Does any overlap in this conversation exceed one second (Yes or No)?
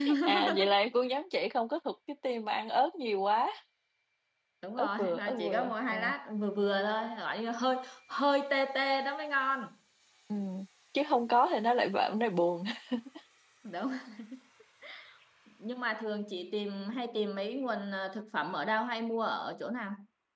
Yes